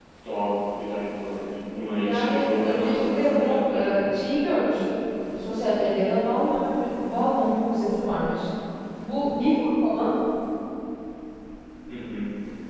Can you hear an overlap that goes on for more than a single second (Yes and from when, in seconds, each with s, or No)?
Yes, from 2.0 s